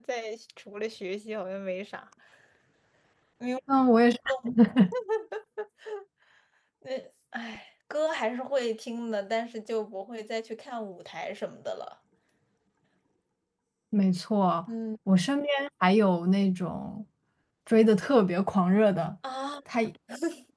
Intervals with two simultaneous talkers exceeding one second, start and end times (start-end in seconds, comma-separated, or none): none